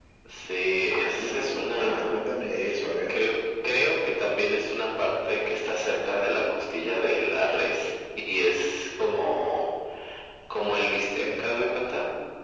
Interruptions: present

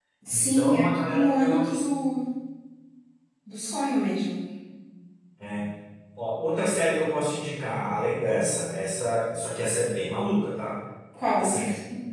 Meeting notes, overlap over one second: present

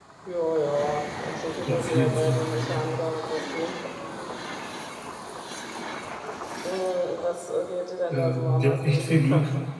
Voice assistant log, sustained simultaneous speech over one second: present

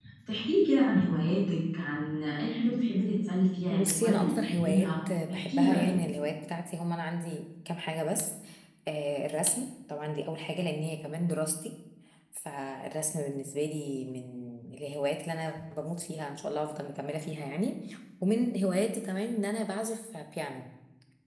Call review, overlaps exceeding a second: present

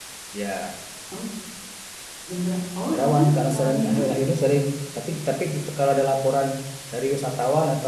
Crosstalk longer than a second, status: present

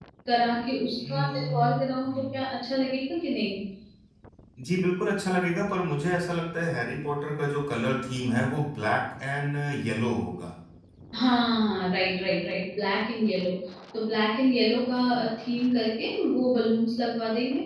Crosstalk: present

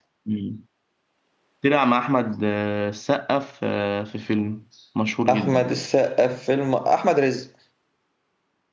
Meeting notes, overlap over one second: none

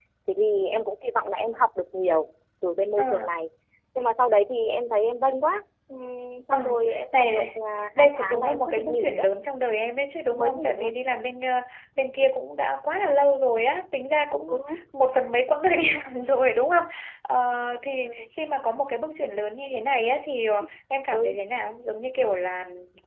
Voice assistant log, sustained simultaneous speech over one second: present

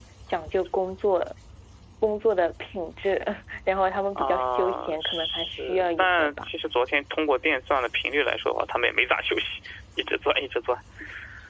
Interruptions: present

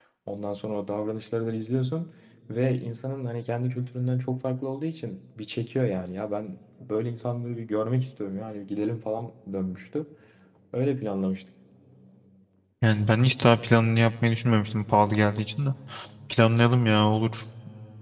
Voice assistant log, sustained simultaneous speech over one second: none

